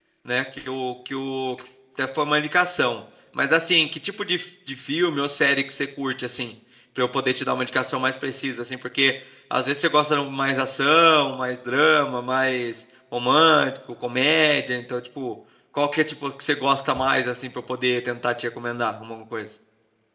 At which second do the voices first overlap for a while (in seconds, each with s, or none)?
none